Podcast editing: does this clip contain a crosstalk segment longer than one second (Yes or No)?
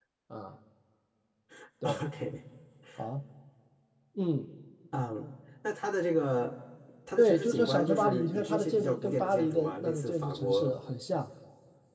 Yes